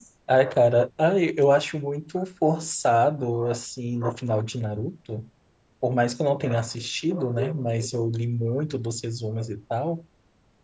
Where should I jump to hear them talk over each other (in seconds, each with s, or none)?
none